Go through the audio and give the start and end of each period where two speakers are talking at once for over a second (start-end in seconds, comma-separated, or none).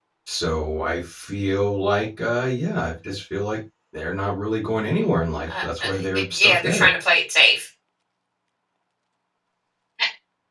5.6-6.9